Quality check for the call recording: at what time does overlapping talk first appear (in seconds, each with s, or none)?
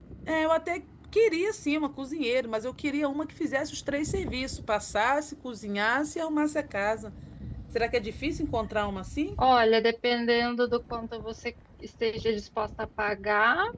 none